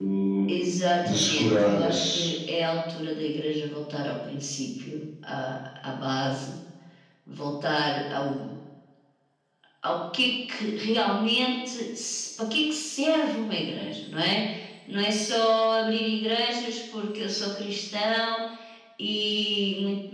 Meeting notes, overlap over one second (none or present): present